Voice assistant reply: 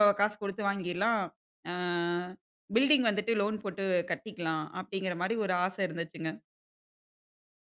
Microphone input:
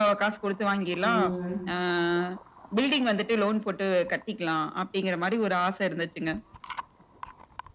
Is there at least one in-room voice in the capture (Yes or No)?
Yes